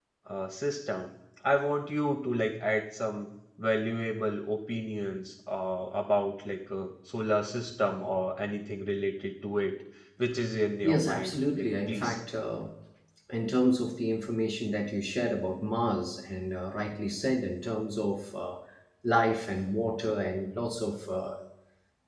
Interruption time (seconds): 10.8 s

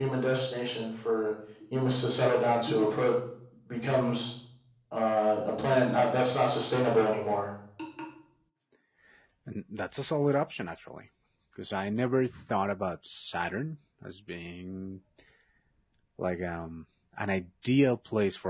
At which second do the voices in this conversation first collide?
none

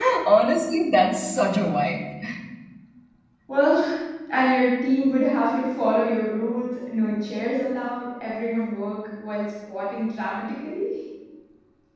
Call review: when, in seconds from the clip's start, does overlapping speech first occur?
none

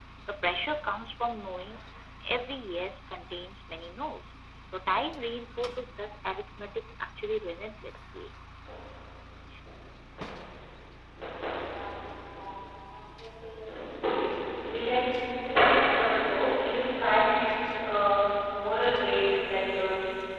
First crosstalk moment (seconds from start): none

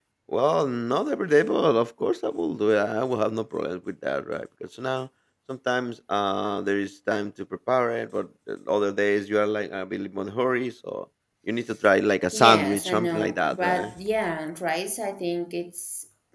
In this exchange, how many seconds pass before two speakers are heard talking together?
12.3 s

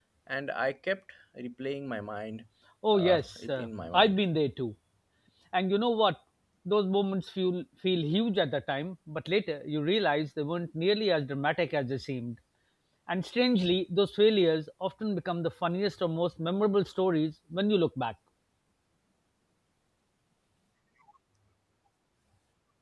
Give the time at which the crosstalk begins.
2.9 s

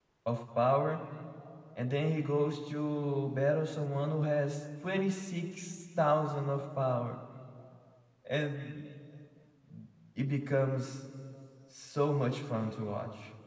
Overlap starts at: none

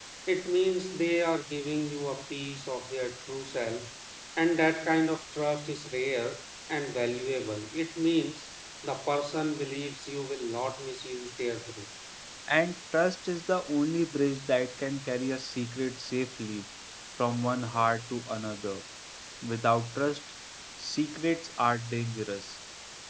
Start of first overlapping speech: none

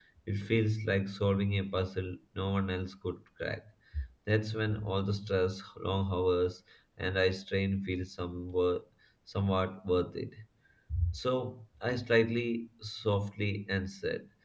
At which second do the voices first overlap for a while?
none

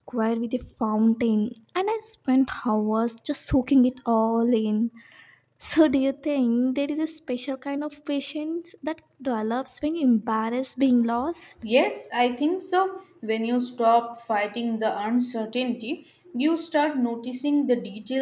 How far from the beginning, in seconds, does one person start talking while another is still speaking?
none

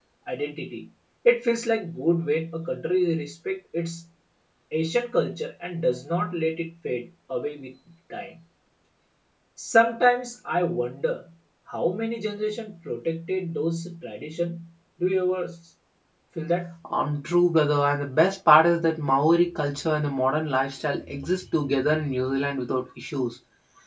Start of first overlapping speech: none

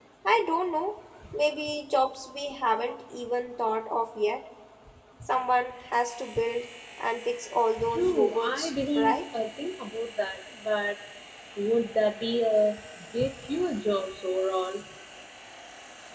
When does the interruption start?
7.8 s

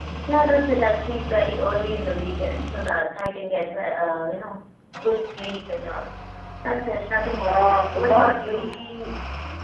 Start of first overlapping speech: 7.5 s

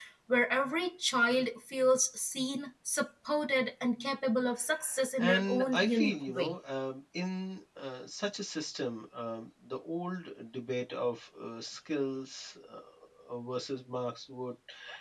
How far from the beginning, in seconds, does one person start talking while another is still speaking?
5.2 s

